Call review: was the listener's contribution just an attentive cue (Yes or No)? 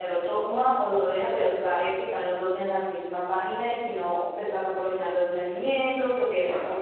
Yes